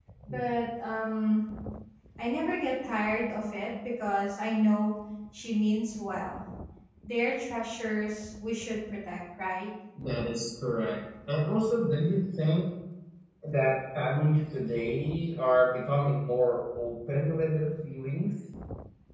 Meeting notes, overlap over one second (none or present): none